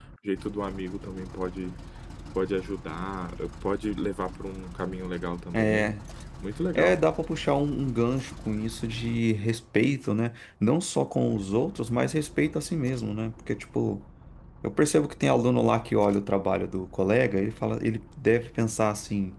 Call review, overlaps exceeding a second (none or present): none